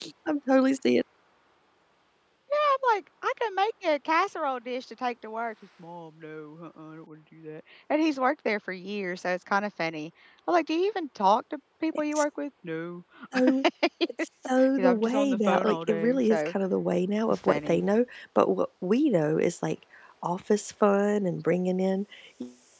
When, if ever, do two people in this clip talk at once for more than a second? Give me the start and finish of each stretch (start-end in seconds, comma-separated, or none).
14.8-16.5